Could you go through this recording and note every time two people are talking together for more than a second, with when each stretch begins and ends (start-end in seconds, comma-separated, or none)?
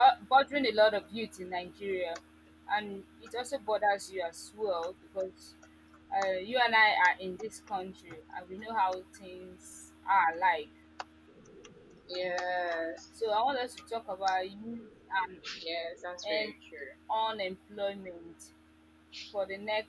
none